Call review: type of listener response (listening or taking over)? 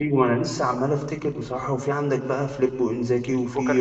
listening